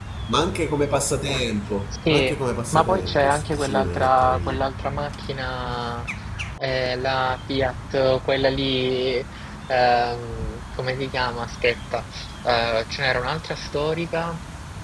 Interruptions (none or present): present